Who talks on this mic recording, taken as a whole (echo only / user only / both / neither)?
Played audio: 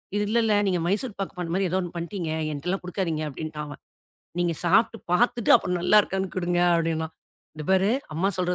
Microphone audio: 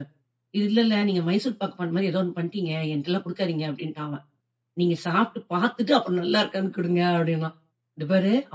echo only